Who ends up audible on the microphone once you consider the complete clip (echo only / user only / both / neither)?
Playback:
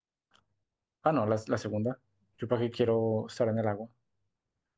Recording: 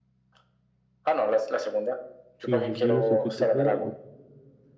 both